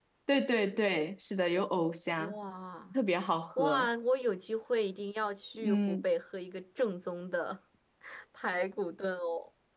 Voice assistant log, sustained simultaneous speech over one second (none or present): none